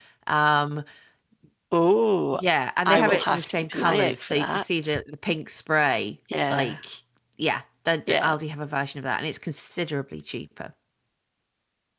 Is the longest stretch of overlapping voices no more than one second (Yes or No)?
No